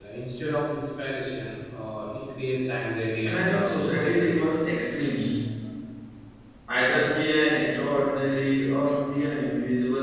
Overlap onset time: 3.2 s

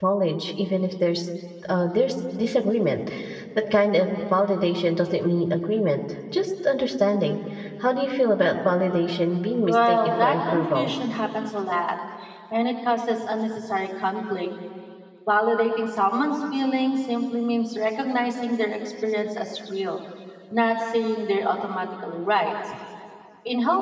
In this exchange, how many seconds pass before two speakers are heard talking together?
9.6 s

